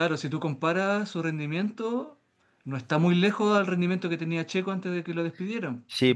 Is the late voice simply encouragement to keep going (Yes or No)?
No